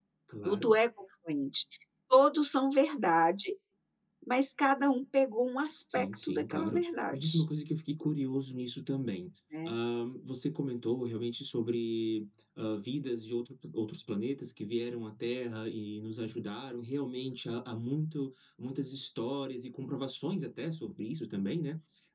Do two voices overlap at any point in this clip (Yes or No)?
Yes